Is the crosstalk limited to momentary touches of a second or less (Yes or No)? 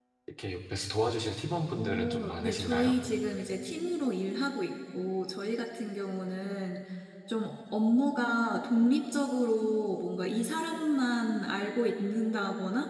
No